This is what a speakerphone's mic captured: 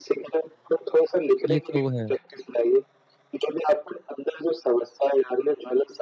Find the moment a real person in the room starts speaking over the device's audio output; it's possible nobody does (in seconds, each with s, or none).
1.5 s